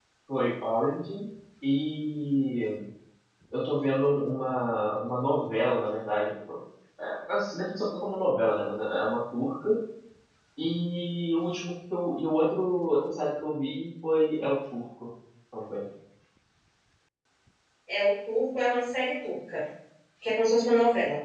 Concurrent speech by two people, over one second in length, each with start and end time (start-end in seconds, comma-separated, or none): none